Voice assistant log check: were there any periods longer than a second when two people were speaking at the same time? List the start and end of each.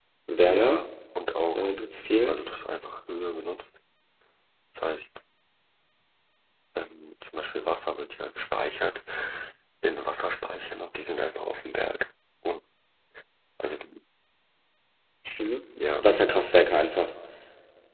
none

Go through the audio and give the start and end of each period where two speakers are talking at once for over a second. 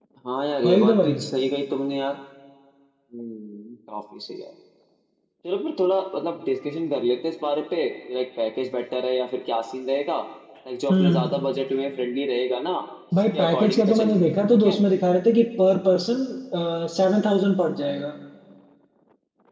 13.3-14.8

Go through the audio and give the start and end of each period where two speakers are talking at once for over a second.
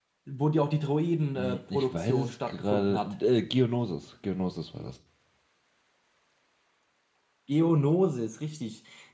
1.4-3.1

